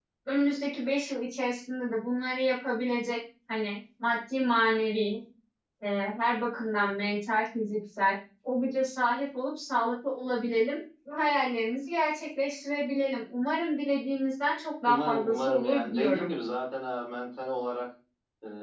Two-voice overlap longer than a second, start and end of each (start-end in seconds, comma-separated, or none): 14.8-16.3